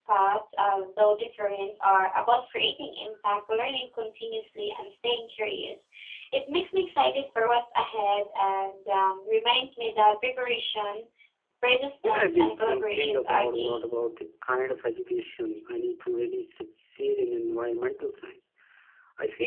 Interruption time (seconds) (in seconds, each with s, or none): 12.0 s